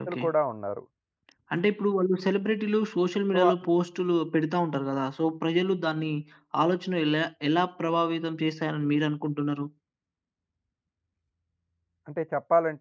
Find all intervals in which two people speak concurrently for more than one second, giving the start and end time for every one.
none

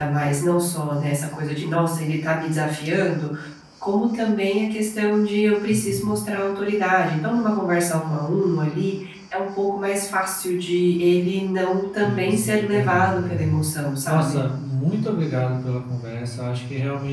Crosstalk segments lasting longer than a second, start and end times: 12.0-13.5

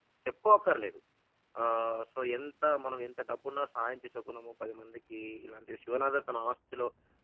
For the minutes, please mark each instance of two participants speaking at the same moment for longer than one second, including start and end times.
none

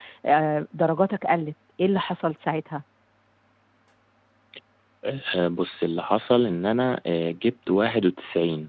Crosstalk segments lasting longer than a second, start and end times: none

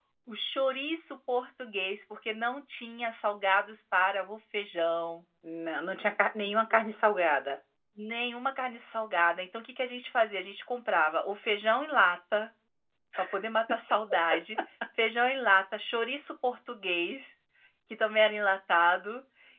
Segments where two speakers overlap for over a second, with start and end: none

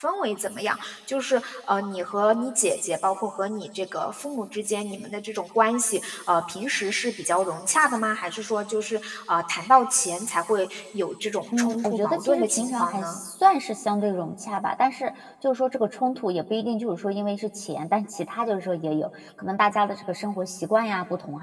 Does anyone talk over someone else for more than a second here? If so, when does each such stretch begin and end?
11.6-13.2

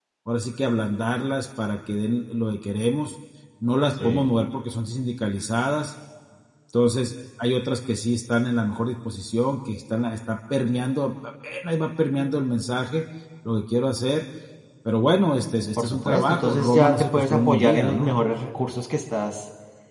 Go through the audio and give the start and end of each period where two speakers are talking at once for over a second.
15.8-18.1

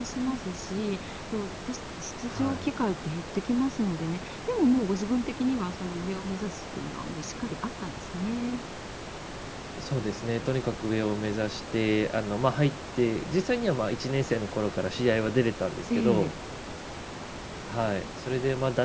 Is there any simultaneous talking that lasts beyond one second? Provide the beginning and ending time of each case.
none

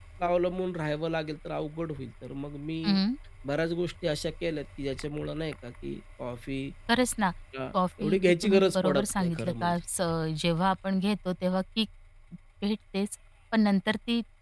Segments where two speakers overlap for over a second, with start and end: 7.7-9.8

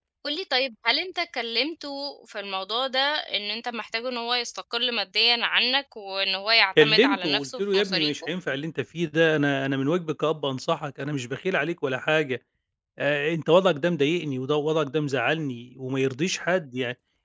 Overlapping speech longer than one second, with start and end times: 6.8-8.1

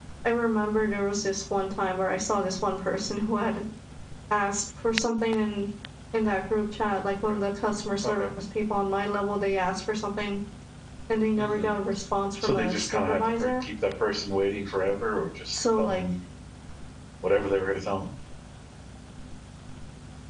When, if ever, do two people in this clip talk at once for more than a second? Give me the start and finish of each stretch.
12.4-13.7

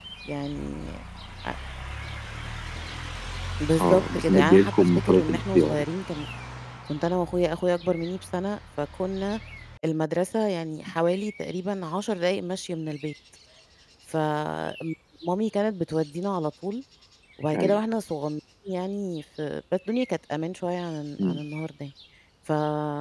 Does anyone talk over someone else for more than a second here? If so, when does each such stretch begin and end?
3.8-5.8

